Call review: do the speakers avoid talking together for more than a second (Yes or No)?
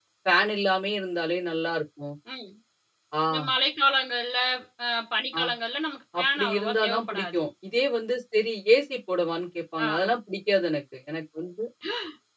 No